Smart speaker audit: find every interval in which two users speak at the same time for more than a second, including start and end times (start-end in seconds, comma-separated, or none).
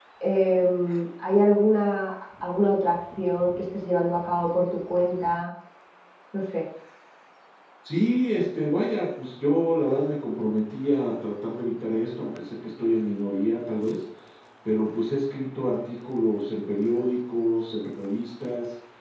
none